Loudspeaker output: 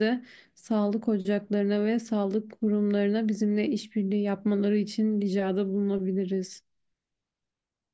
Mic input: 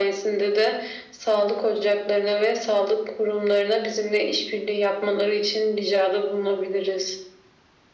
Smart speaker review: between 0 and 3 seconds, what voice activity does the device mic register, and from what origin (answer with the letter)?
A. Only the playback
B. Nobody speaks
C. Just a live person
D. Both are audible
A